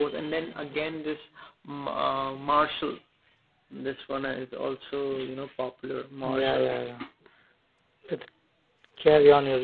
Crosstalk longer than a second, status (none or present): none